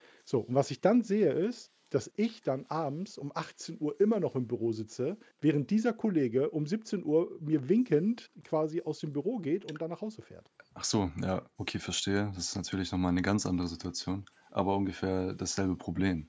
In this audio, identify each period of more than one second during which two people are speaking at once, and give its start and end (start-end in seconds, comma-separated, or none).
none